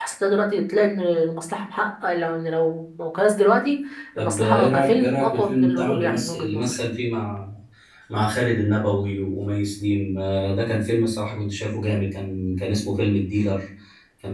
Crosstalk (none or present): present